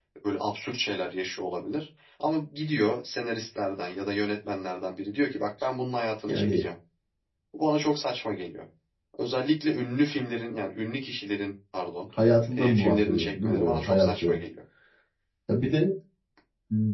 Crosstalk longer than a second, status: present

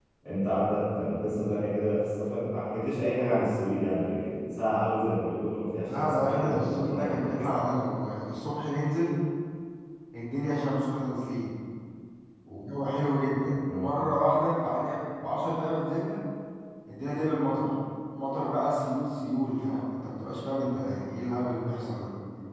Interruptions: present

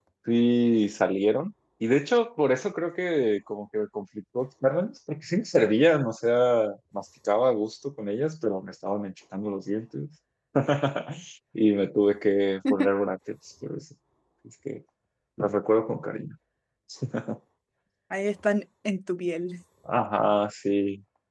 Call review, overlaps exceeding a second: none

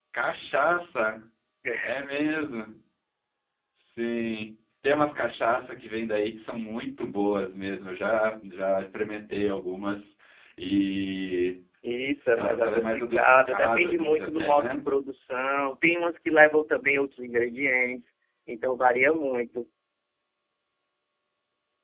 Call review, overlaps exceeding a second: present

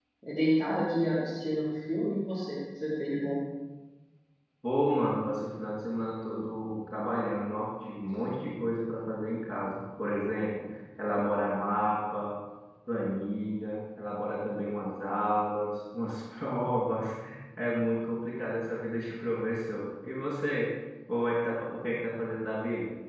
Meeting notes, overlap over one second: none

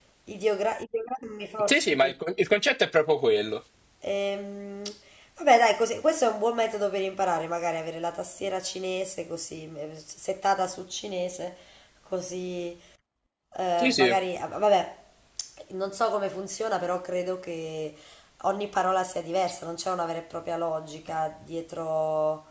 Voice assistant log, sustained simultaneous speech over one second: none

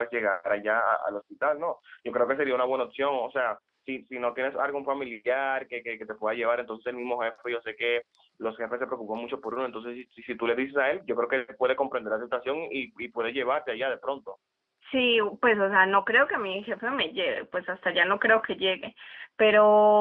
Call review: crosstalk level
none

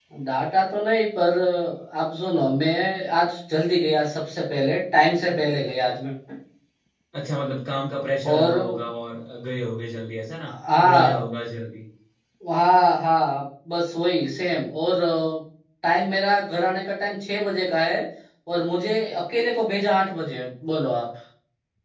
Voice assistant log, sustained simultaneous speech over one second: none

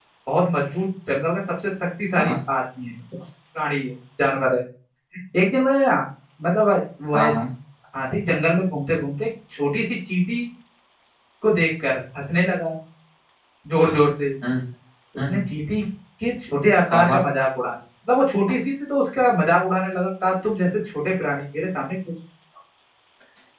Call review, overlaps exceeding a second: none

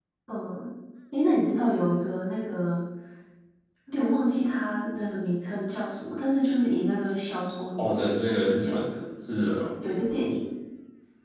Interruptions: present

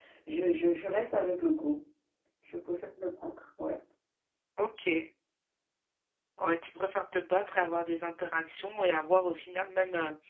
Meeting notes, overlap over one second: none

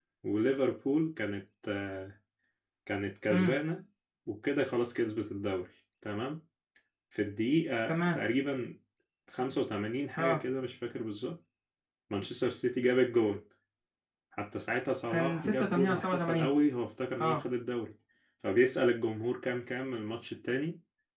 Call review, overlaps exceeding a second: present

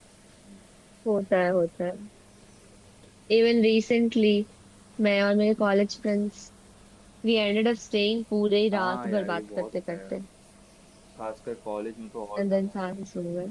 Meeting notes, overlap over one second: present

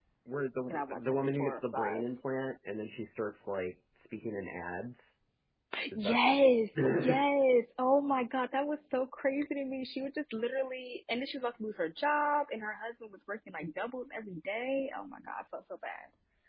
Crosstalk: present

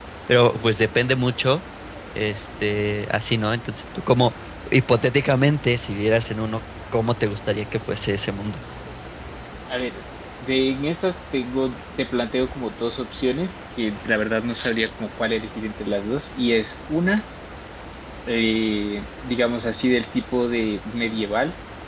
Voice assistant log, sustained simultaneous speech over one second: none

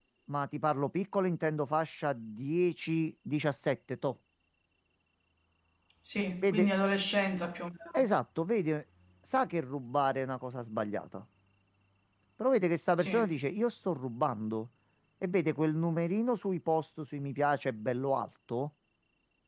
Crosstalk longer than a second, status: none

